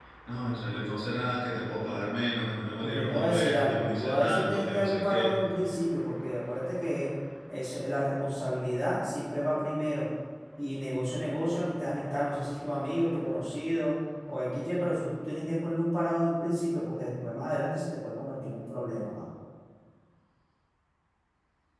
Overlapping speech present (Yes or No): Yes